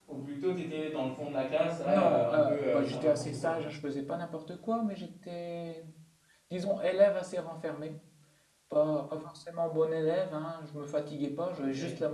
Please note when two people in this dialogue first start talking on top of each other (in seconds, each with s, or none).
1.9 s